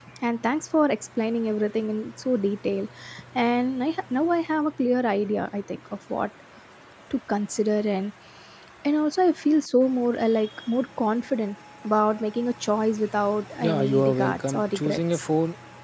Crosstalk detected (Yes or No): Yes